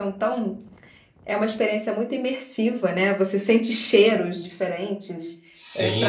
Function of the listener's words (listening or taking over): taking over